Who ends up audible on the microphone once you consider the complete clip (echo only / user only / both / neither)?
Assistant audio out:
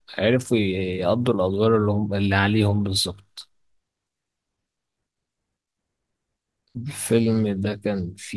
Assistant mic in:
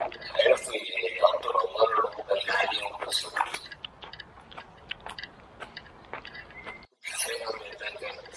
echo only